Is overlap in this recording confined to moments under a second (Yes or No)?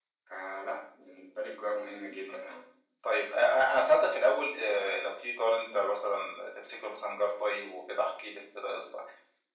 Yes